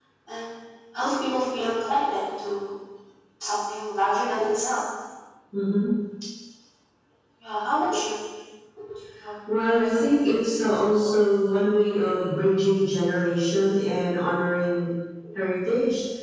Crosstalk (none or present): none